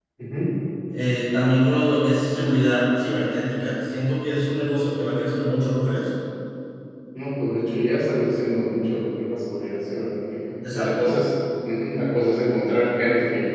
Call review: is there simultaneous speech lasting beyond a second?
No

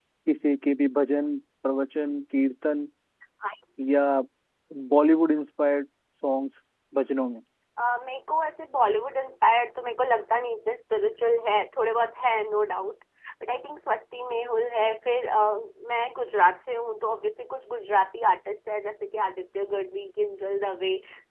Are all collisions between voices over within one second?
Yes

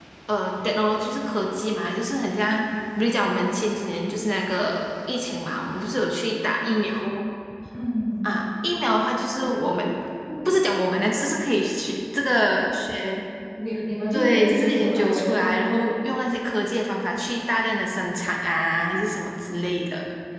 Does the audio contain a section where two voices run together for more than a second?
Yes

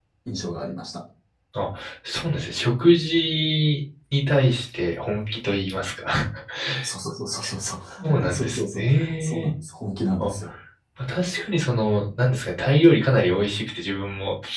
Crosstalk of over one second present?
Yes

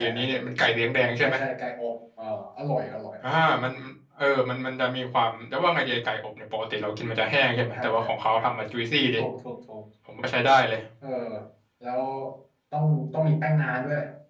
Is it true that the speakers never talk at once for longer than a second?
Yes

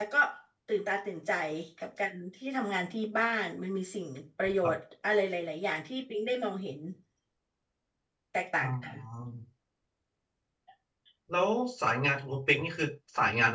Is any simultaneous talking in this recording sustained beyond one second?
No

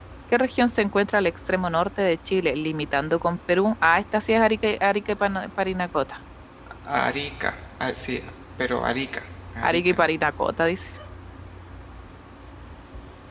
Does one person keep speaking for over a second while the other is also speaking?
No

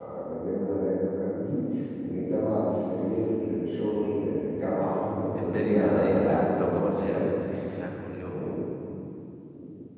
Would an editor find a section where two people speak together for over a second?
Yes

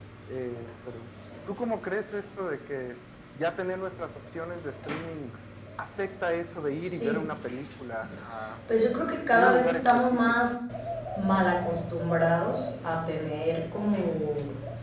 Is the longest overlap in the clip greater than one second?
Yes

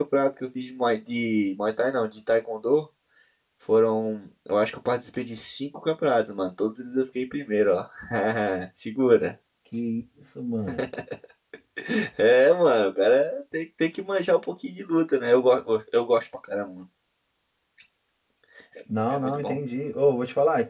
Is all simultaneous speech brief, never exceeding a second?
Yes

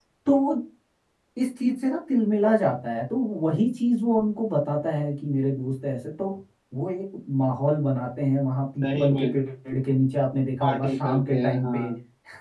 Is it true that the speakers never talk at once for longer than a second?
No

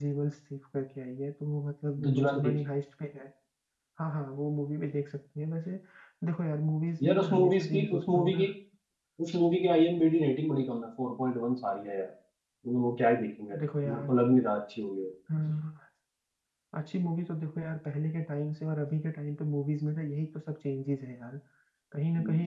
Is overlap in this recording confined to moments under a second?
No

